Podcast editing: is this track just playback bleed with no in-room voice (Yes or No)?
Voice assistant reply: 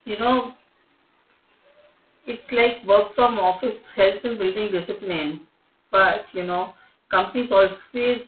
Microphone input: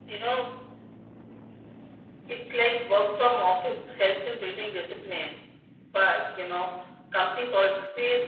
Yes